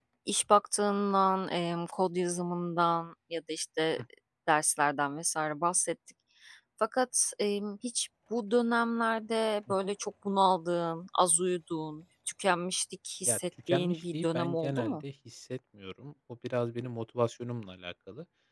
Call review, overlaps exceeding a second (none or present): present